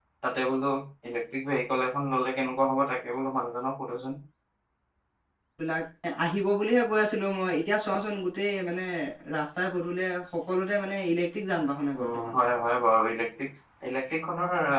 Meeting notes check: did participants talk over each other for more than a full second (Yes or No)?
No